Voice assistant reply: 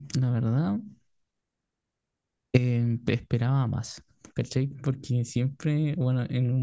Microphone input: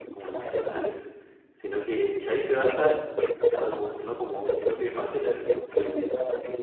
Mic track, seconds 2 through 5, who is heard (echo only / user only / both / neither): both